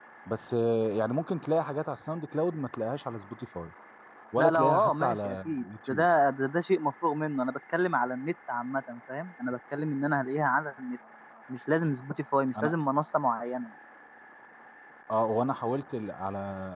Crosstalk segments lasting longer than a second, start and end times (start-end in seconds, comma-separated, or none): 4.4-6.1